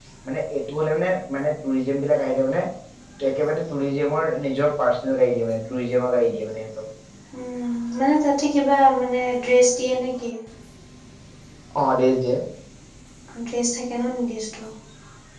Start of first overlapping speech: none

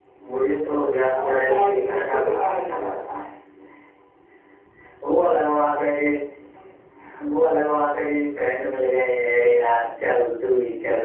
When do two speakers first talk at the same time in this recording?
1.1 s

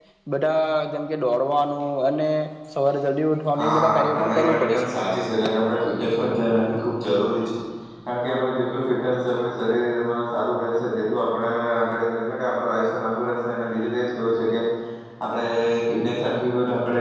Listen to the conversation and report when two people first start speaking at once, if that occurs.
3.5 s

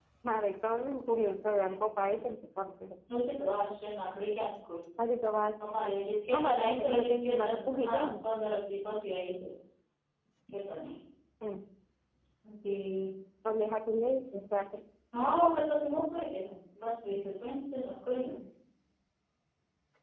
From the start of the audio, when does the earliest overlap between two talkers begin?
6.3 s

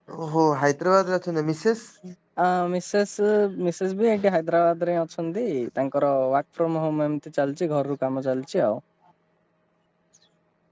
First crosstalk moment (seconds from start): none

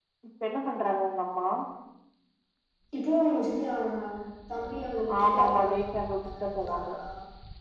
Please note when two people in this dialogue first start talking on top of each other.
5.2 s

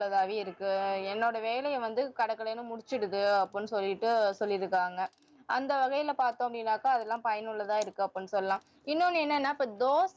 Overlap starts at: none

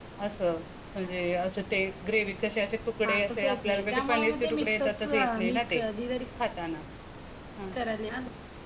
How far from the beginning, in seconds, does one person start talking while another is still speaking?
3.0 s

